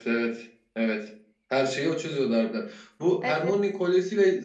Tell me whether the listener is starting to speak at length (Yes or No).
No